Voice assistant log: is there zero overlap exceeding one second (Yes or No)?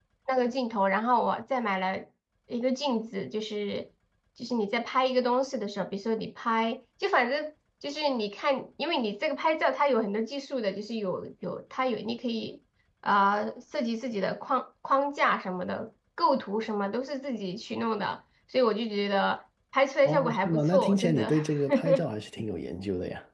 No